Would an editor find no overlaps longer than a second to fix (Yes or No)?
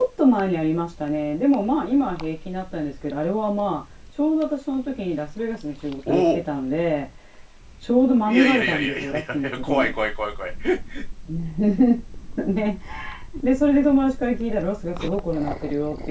No